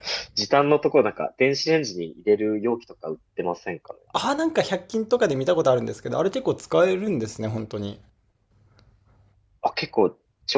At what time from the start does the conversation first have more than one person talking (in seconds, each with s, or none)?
none